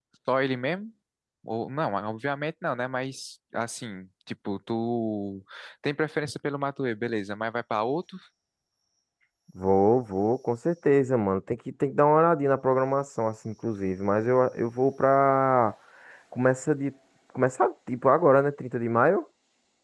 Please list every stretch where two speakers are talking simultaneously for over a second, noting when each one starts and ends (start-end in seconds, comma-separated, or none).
none